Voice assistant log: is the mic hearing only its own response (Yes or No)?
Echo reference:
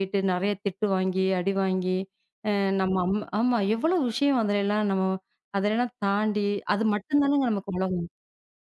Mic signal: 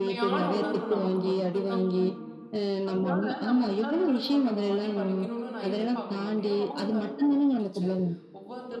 No